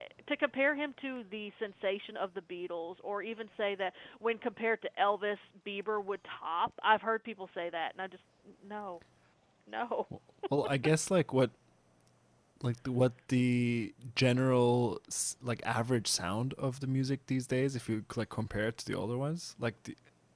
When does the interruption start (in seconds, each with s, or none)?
none